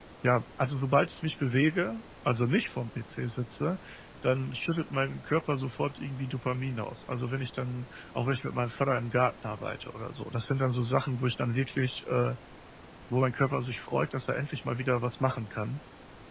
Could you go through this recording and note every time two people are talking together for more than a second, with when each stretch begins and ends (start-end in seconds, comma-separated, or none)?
none